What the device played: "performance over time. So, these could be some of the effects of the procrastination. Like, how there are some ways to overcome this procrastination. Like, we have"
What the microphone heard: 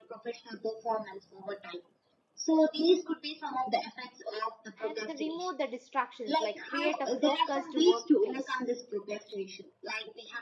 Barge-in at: 4.8 s

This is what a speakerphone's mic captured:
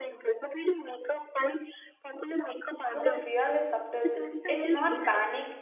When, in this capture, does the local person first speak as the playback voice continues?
2.8 s

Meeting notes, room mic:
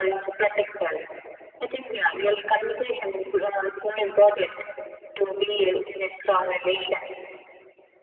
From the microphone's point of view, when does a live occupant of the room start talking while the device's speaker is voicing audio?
none

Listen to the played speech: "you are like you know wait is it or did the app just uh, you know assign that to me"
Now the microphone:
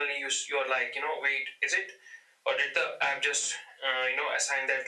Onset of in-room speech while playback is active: none

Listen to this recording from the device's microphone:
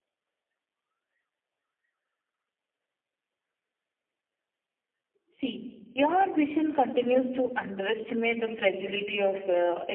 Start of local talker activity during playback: 5.3 s

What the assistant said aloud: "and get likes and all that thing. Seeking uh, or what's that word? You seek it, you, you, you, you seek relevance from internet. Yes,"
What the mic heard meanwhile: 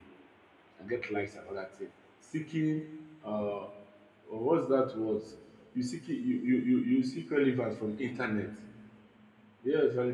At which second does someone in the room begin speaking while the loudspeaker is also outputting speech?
none

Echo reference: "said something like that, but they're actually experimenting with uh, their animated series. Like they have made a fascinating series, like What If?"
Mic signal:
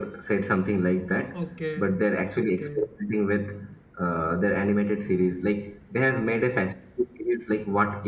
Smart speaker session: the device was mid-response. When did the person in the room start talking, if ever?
1.4 s

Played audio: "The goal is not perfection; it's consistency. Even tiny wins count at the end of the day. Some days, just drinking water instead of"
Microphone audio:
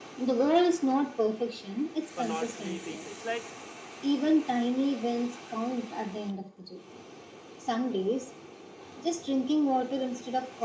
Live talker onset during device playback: 2.1 s

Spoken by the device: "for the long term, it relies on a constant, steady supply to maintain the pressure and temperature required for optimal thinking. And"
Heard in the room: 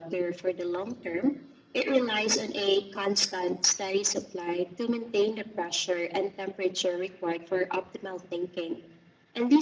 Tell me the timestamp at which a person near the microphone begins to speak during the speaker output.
none

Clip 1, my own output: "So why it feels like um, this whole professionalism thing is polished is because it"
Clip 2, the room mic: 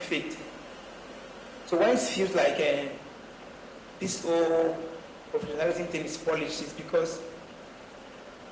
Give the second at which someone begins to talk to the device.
none

